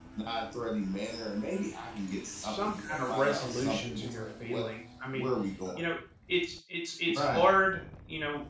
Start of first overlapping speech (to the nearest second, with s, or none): 2 s